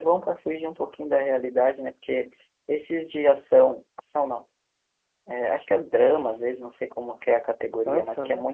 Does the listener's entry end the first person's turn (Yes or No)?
No